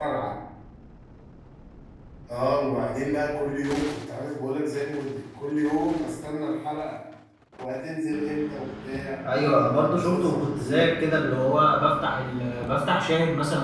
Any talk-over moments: Yes, from 9.2 s

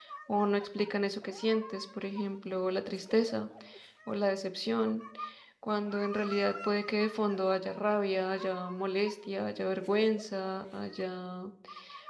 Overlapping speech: No

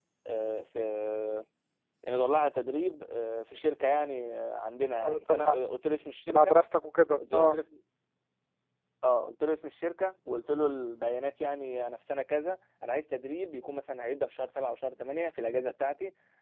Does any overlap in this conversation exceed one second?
No

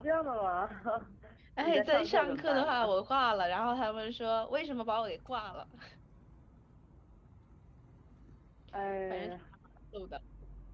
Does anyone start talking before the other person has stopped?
Yes, from 1.6 s

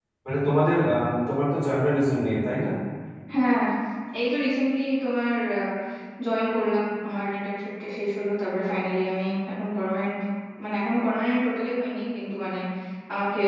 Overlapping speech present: No

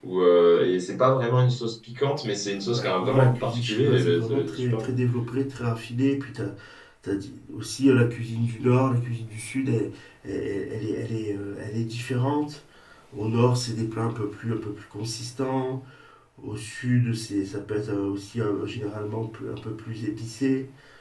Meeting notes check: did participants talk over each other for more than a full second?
Yes, from 2.7 s

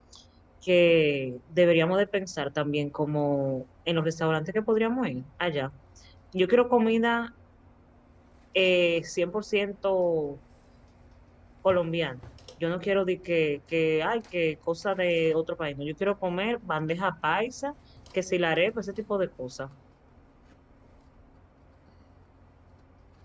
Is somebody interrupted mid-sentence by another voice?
No

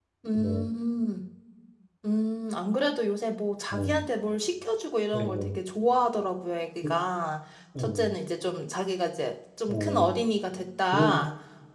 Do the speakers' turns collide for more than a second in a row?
No

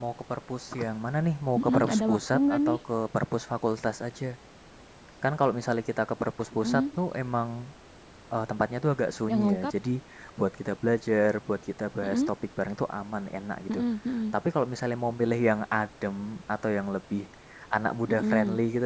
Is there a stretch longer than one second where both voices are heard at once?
Yes, from 1.6 s

